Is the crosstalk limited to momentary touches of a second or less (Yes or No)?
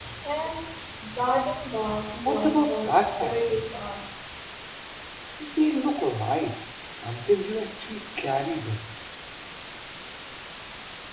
No